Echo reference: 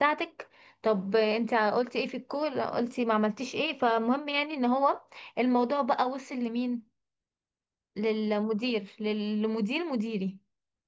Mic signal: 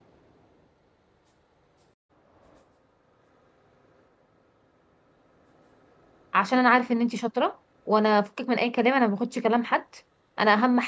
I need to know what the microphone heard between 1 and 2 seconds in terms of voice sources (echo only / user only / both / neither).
neither